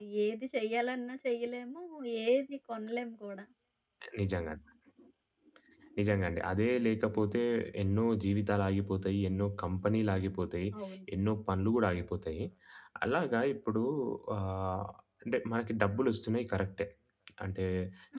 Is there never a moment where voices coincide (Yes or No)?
Yes